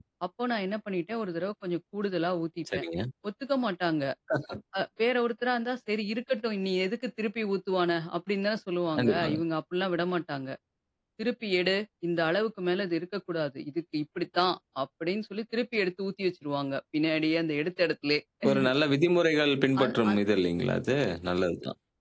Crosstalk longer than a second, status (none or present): none